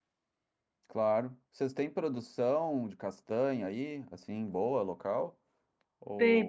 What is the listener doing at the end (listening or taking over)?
taking over